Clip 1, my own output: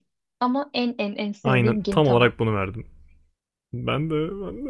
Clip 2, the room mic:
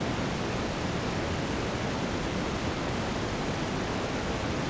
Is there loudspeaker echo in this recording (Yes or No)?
No